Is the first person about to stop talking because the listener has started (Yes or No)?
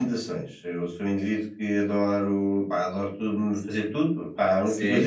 No